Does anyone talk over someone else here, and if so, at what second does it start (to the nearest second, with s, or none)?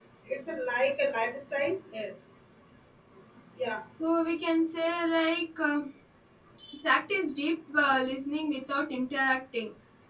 none